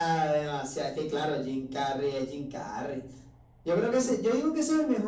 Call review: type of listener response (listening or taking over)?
listening